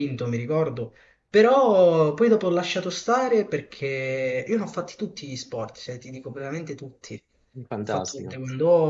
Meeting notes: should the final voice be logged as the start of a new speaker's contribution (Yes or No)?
No